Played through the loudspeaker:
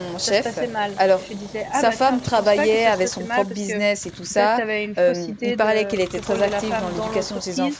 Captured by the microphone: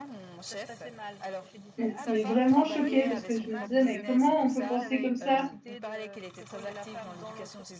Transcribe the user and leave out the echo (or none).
mais, mais vraiment choqué parce que je me disais, mais comment on peut penser comme ça